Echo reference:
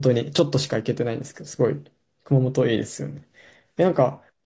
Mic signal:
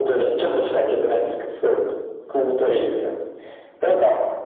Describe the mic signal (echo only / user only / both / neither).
echo only